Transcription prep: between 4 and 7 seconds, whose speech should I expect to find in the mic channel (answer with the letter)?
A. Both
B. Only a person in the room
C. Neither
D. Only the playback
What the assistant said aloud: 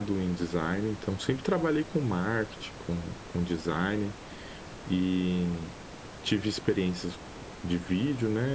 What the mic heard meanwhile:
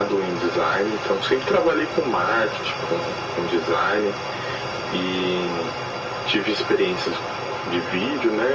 D